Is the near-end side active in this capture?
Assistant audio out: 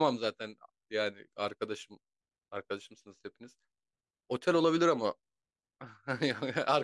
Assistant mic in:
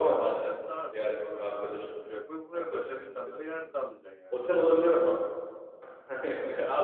Yes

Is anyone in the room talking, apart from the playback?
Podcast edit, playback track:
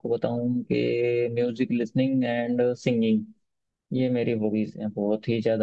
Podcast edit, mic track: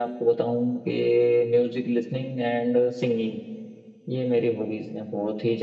No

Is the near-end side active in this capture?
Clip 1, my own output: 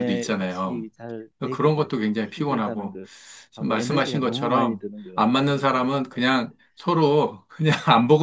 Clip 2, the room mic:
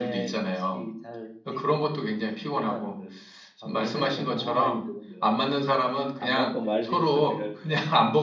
Yes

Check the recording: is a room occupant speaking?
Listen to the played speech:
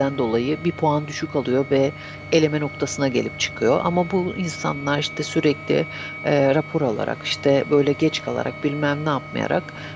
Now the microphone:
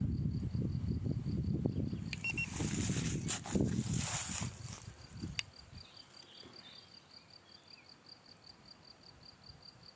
No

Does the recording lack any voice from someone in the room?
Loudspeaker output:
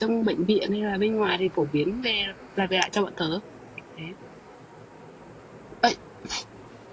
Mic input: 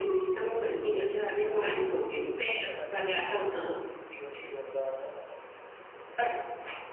No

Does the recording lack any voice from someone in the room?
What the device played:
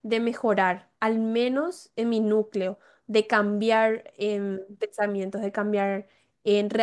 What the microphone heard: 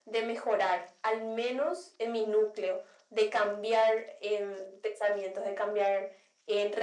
Yes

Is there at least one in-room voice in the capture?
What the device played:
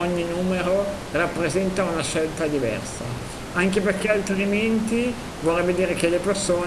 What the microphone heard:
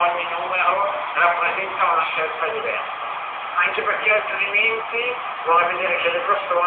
No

